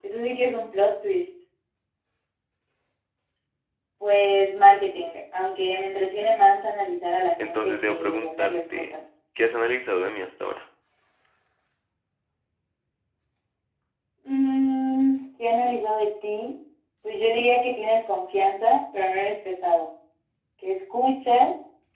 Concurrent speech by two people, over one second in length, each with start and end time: 7.4-9.0

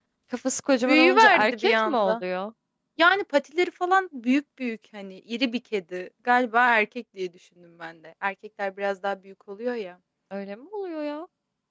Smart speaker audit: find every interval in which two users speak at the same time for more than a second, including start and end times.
0.9-2.2

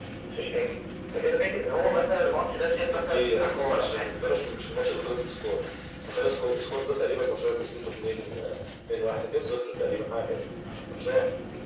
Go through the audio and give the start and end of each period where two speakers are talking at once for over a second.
2.7-4.0

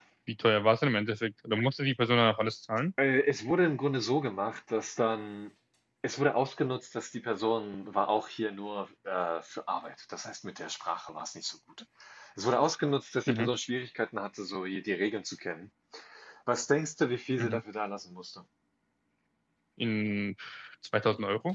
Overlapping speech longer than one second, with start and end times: none

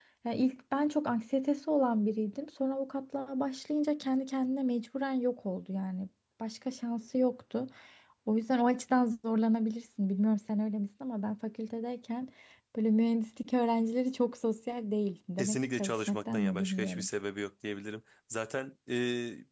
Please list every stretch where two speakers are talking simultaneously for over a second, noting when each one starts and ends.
15.4-17.1

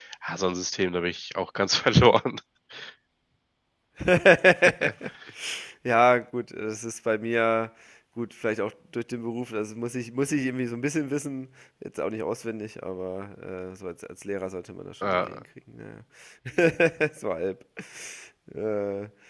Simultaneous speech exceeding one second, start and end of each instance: none

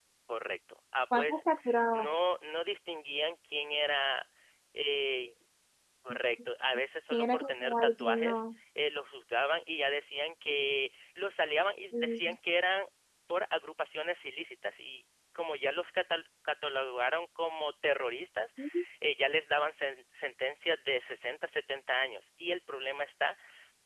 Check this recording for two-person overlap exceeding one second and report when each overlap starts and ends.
7.1-8.4

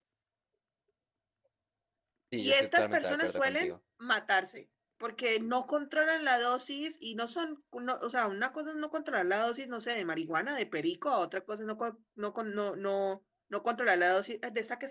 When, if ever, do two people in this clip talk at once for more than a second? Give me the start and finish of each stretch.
2.4-3.7

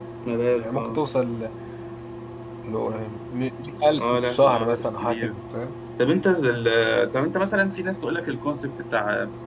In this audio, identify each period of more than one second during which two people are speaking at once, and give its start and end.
4.0-5.3

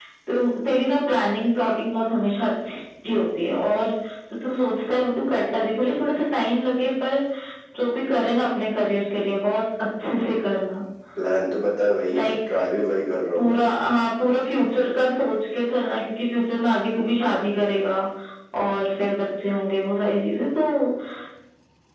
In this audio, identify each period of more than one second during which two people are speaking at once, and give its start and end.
none

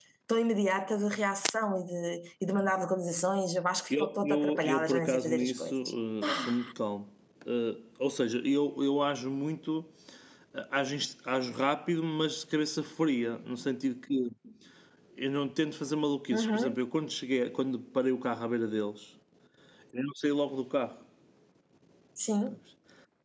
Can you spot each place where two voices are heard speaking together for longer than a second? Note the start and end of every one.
3.9-5.7

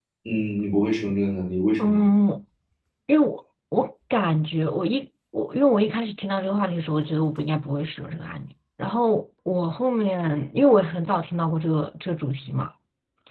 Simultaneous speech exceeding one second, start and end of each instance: none

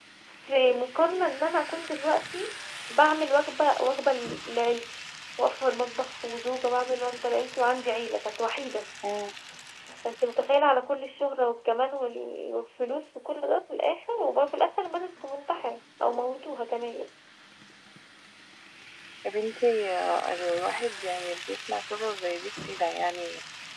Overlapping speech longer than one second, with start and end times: none

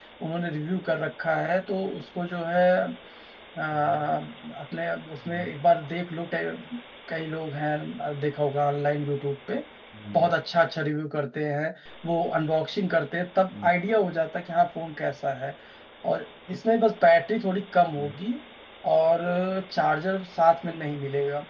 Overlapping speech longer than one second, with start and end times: none

